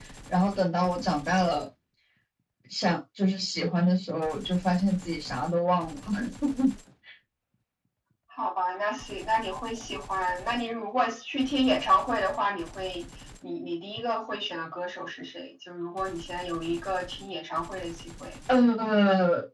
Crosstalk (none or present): none